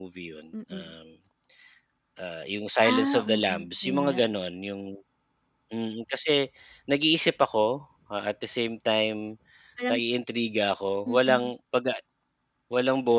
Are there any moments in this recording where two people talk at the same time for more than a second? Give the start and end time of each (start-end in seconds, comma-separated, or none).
2.9-4.2